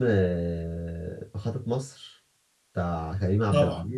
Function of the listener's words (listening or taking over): taking over